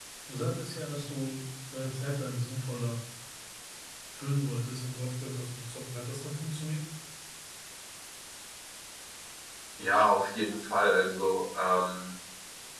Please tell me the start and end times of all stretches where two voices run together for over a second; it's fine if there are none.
none

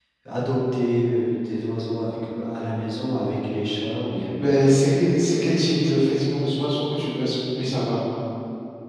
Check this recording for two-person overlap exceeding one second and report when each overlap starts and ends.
none

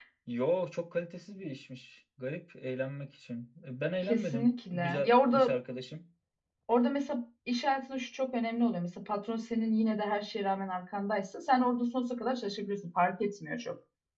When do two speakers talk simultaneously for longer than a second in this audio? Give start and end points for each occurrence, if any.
4.0-5.5

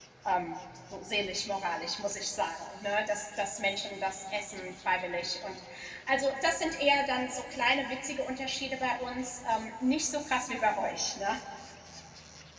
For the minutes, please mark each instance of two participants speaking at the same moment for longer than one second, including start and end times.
none

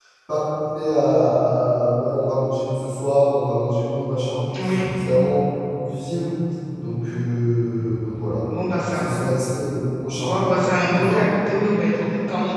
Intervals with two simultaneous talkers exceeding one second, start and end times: none

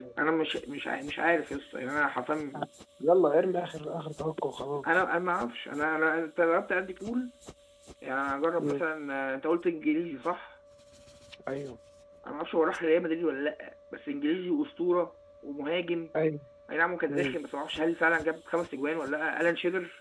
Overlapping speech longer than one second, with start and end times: none

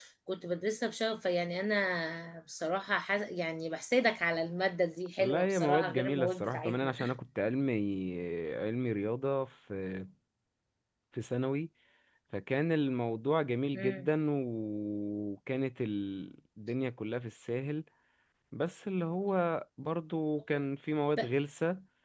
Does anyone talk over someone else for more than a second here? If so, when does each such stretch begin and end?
5.2-7.0

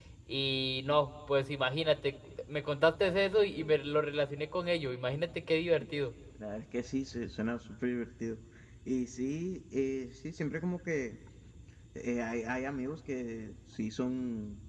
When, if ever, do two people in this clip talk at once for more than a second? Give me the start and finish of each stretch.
none

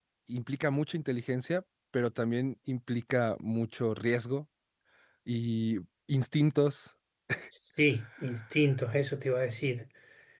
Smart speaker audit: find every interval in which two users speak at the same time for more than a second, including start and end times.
none

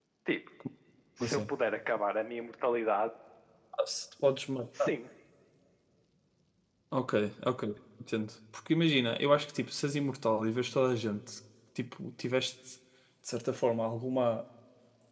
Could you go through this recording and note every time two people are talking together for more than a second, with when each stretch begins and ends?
none

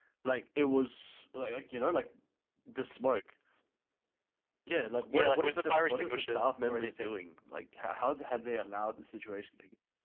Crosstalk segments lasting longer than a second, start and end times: 5.1-7.1

